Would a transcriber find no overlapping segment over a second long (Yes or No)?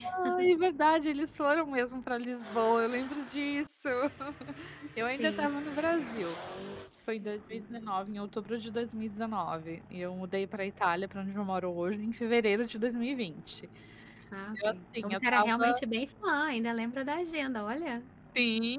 No